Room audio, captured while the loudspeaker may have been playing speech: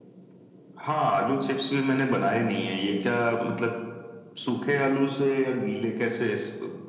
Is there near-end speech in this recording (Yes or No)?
No